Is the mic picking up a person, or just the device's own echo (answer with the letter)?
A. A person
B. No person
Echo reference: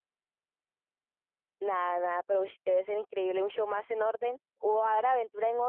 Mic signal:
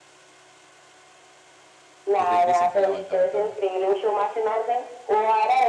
A